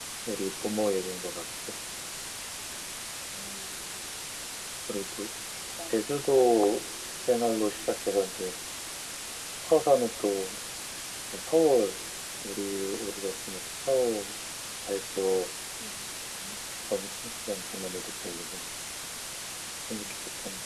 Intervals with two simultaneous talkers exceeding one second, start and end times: none

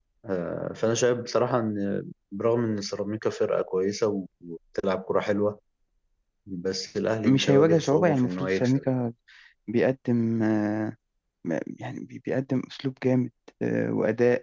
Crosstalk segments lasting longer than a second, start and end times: 7.3-8.8

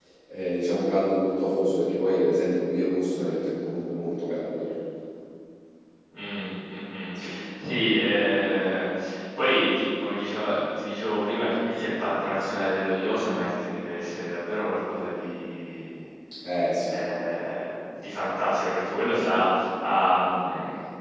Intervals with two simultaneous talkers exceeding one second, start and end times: none

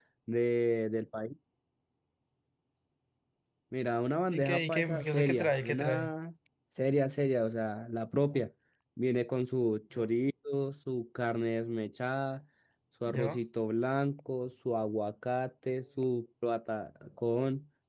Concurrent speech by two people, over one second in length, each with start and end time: 4.3-6.1

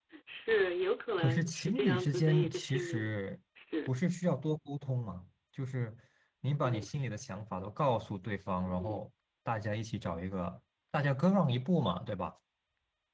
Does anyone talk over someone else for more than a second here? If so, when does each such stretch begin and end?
1.2-3.2

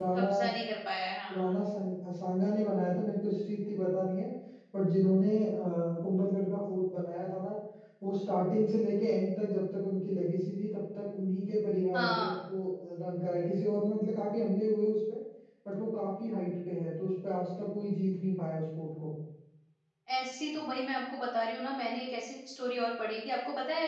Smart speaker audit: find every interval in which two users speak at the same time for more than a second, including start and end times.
none

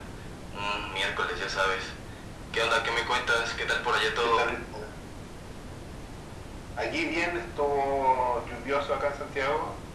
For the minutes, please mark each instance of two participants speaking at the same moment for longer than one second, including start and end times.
none

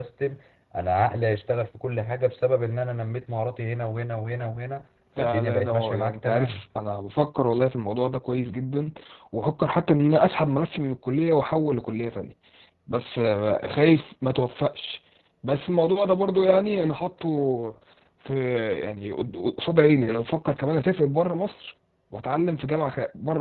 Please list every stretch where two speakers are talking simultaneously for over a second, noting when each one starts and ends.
5.2-6.6

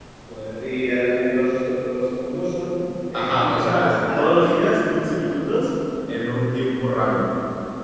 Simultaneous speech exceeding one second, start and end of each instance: 3.1-4.6

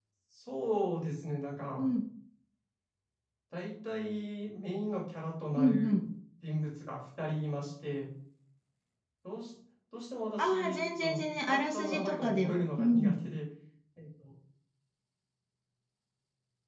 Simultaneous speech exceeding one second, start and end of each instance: 10.4-13.1

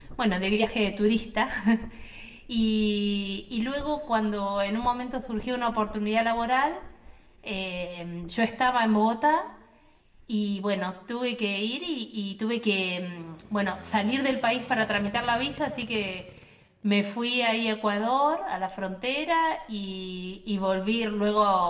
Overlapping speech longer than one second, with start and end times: none

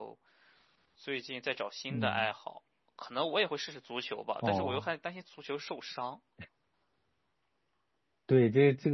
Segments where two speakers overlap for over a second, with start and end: none

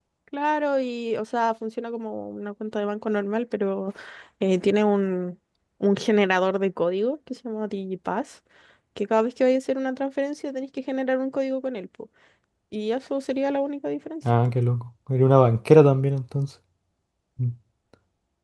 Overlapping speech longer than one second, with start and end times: none

